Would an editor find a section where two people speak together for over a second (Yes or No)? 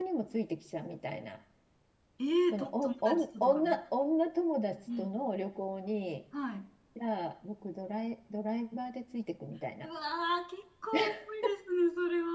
Yes